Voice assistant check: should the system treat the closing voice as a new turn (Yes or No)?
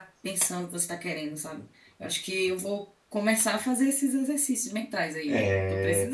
Yes